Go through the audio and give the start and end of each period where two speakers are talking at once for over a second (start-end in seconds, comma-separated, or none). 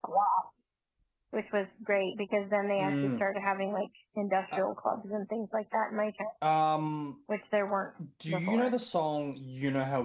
none